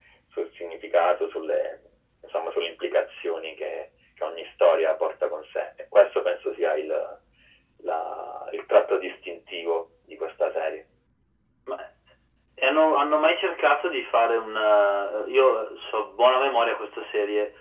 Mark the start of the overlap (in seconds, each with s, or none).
none